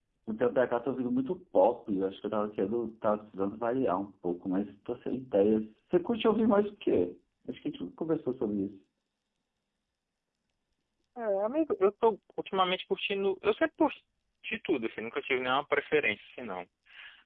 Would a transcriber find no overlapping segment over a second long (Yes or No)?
Yes